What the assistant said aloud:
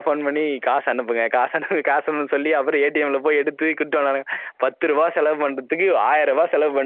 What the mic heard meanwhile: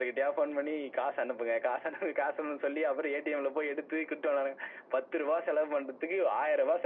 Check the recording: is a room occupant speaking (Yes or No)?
No